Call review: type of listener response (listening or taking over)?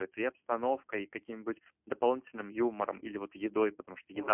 taking over